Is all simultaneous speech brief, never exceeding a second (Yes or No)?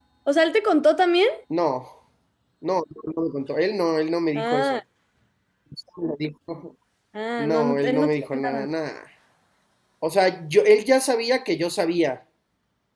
No